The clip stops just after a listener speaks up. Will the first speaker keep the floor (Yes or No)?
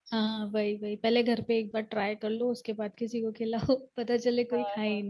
No